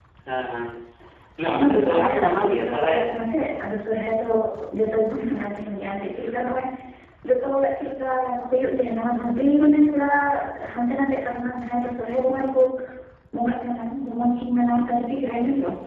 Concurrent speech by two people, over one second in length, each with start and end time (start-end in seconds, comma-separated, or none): 1.5-3.0